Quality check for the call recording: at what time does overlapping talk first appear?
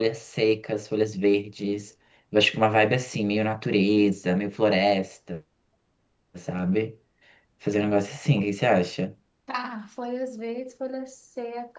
none

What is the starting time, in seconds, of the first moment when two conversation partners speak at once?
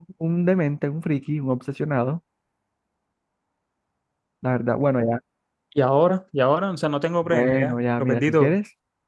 7.3 s

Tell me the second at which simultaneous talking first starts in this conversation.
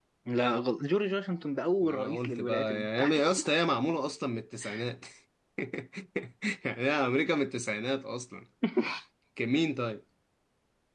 1.8 s

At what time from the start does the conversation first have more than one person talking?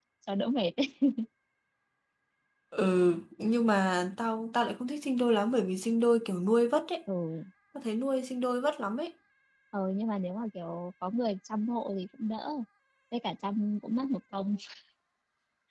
none

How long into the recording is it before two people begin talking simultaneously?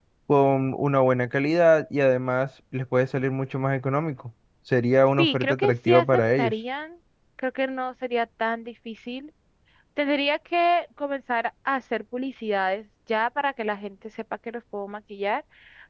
5.2 s

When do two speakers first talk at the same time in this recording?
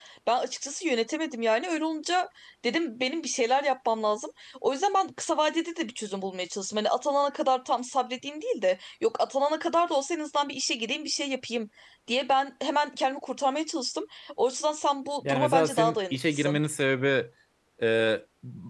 15.2 s

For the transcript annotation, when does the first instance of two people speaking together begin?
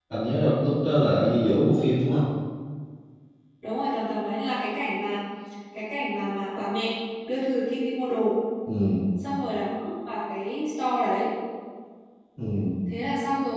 none

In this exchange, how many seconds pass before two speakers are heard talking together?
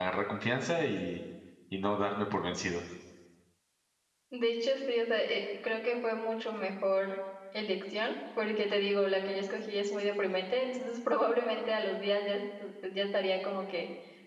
none

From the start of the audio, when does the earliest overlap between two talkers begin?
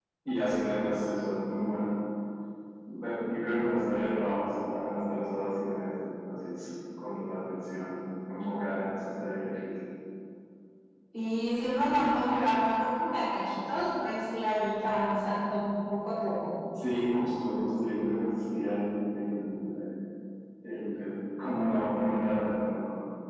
none

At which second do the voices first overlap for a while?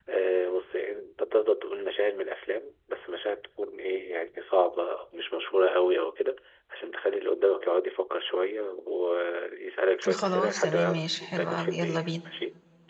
10.0 s

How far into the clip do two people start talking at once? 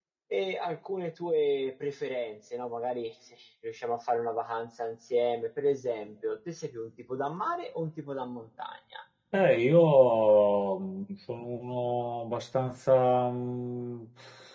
none

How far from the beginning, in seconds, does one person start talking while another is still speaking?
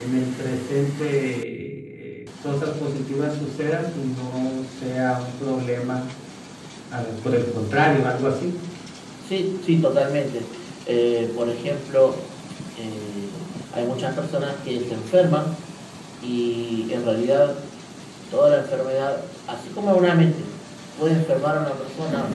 none

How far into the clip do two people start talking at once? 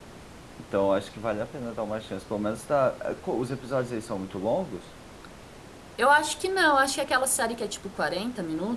none

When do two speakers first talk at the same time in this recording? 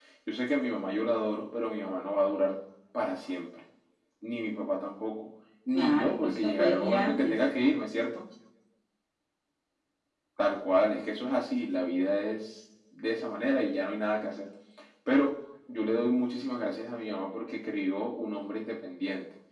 5.7 s

